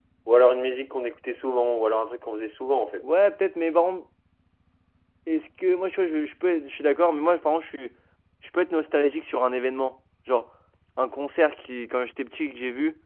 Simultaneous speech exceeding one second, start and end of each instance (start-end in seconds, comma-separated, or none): none